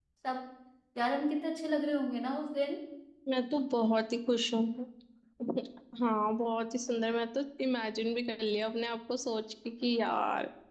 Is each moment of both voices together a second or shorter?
Yes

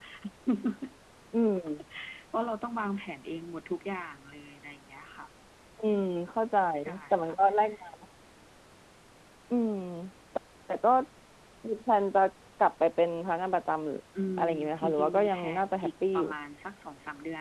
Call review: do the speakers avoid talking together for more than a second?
No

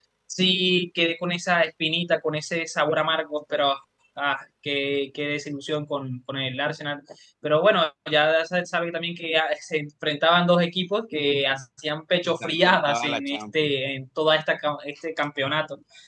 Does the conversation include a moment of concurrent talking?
Yes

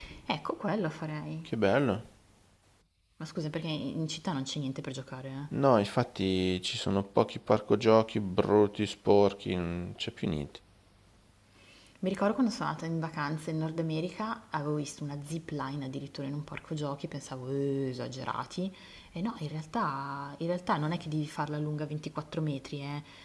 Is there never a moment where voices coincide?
Yes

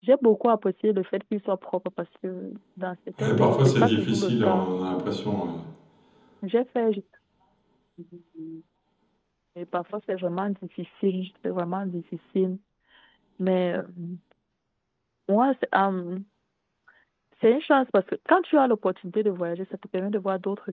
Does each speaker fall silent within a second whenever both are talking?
No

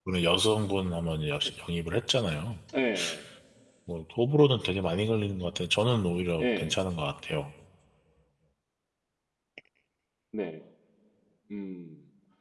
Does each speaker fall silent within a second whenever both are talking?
Yes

